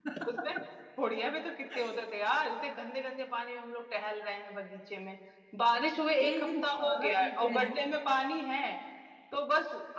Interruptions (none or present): present